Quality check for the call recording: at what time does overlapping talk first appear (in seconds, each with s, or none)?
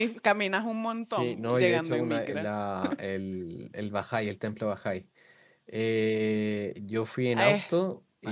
1.1 s